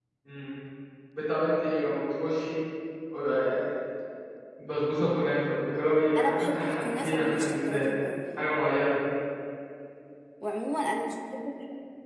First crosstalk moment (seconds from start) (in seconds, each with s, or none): 6.2 s